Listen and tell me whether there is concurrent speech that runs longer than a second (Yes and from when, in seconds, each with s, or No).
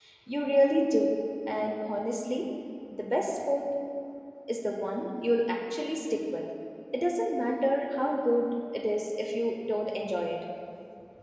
No